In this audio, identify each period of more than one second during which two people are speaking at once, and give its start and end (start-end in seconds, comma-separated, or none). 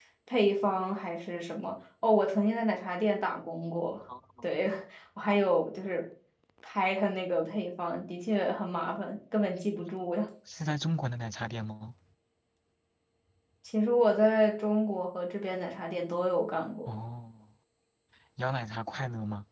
none